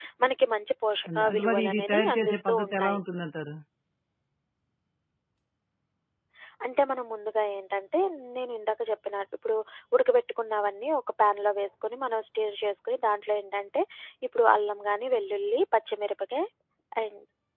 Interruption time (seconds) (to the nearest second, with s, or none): 1 s